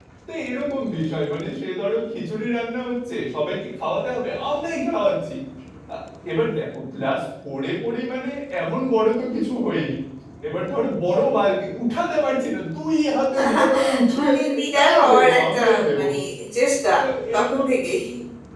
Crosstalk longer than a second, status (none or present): present